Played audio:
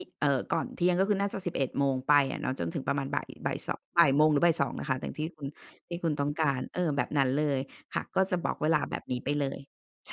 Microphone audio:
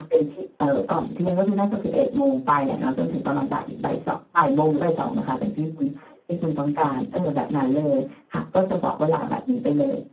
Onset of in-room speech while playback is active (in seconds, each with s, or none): none